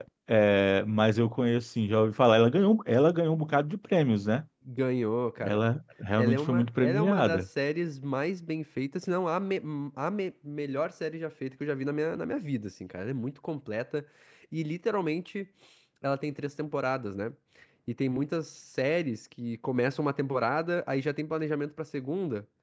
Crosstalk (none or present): present